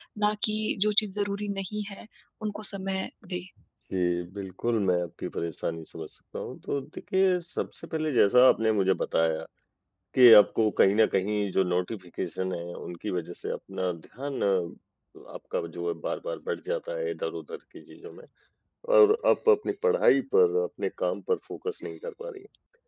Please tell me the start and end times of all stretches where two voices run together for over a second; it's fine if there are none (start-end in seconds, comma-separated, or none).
none